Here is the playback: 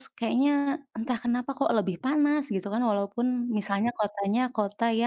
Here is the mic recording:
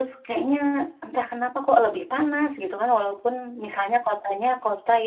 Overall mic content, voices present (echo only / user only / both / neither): echo only